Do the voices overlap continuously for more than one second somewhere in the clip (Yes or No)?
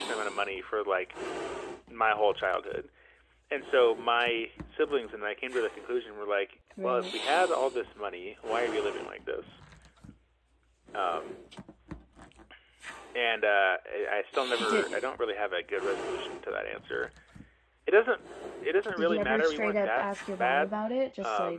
Yes